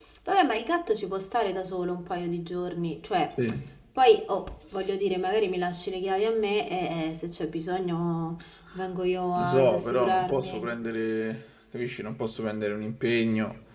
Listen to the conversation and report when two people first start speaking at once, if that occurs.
9 s

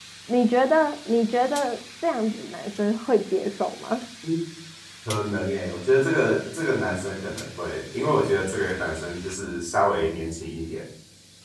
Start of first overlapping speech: none

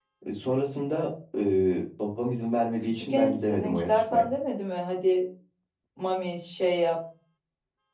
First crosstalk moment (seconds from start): 3 s

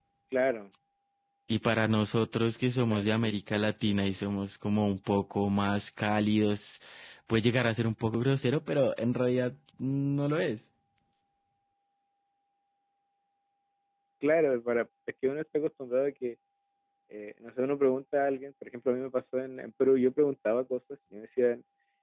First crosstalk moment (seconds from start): 3 s

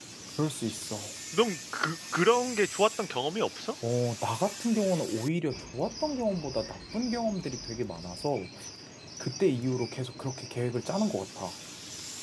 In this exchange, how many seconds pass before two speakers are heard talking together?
none

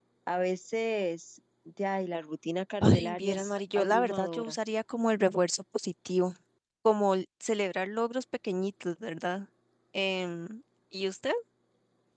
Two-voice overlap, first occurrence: 3 s

